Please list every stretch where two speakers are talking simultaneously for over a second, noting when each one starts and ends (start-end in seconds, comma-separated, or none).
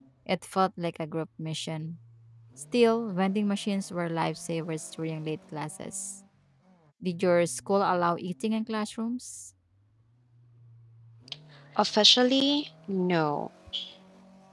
none